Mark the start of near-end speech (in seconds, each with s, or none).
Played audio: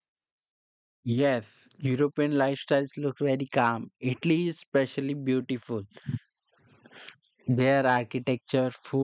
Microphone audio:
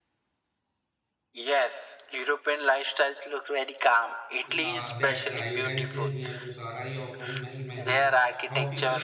4.4 s